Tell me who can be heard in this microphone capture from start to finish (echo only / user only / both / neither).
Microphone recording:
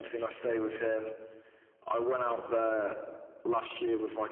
echo only